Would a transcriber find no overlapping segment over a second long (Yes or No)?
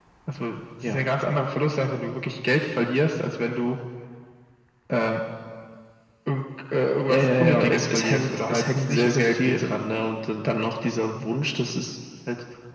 No